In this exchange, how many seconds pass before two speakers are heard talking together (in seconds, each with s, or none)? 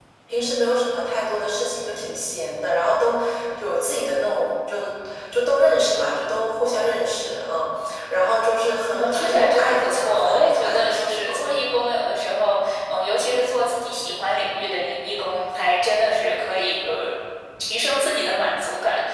8.9 s